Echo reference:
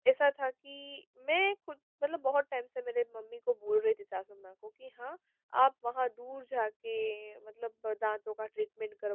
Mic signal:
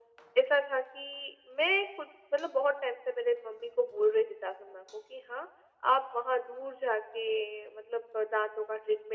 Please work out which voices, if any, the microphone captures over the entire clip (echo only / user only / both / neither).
echo only